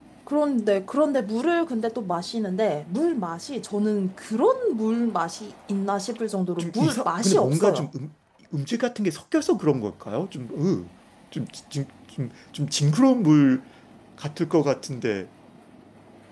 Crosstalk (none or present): present